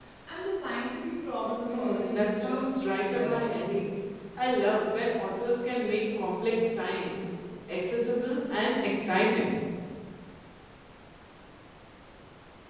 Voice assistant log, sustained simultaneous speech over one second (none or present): present